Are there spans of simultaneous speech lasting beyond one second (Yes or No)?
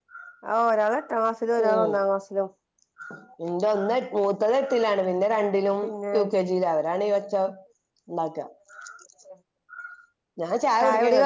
No